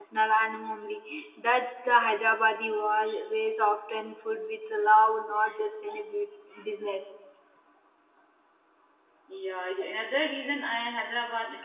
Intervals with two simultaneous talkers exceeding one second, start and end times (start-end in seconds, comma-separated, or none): none